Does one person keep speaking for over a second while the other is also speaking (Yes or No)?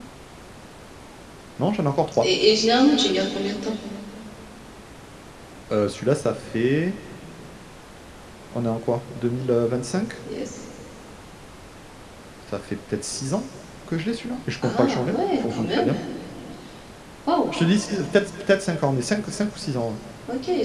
Yes